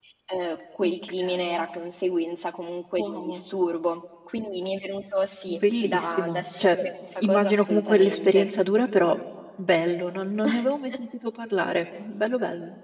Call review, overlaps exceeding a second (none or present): present